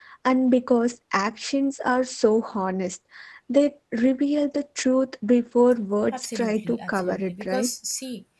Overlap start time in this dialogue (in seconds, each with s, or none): 6.1 s